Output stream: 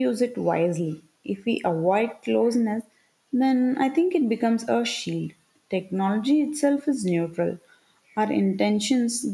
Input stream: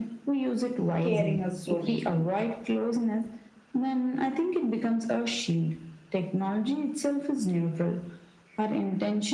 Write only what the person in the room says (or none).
caring us so deeply.